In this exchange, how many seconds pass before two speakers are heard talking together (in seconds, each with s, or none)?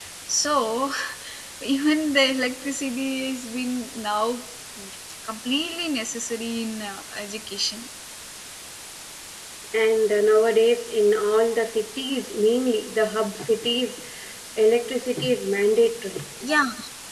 none